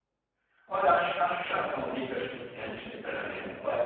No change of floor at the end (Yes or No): Yes